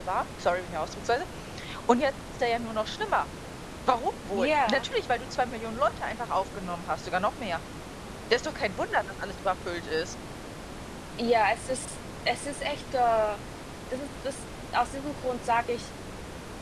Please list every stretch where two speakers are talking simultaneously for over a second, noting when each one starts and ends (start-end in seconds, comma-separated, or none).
none